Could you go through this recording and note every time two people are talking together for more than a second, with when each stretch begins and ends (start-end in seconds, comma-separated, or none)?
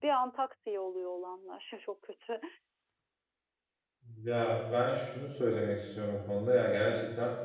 none